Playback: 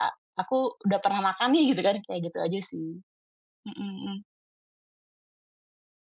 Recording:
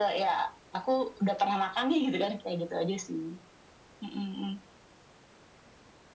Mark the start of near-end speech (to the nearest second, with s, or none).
none